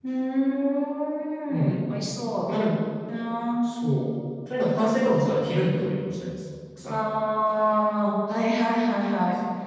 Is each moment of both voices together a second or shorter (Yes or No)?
Yes